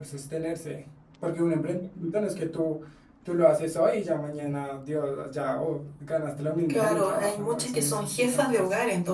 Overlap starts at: 6.7 s

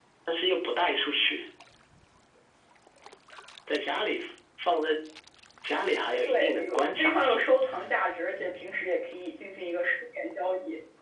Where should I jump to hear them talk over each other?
6.2 s

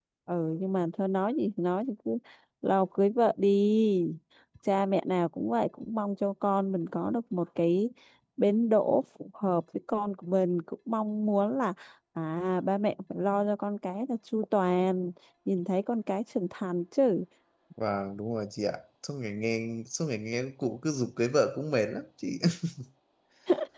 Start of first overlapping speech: none

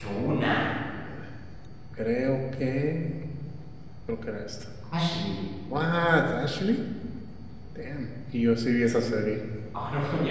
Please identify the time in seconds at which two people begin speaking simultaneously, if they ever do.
none

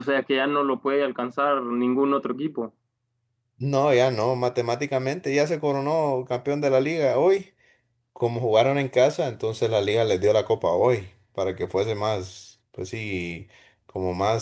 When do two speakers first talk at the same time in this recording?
none

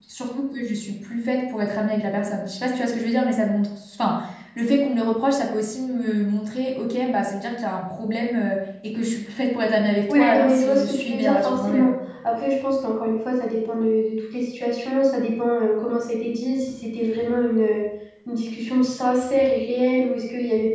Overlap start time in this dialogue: 10.1 s

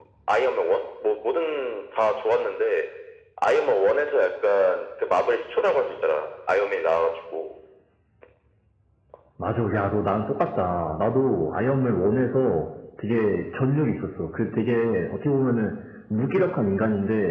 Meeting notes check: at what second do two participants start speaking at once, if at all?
none

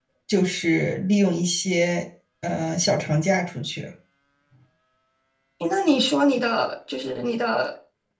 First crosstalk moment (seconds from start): none

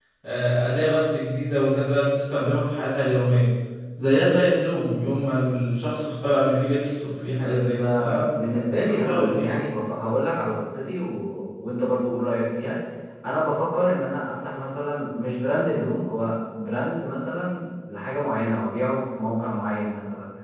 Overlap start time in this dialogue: 7.4 s

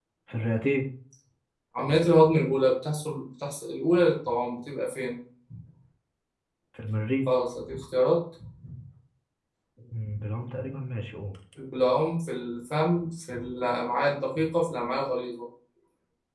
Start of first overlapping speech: none

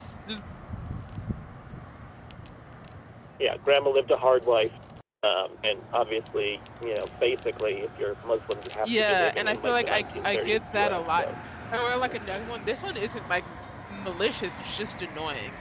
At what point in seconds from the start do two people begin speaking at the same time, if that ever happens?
8.8 s

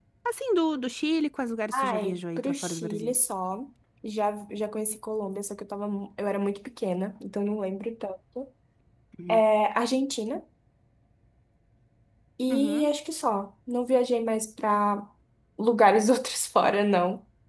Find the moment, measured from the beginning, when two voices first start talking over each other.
1.7 s

